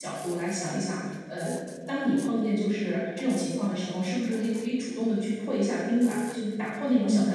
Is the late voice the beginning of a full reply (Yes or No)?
Yes